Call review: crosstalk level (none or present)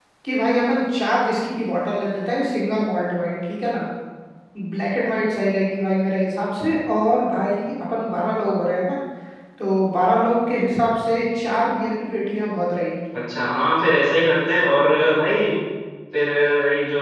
none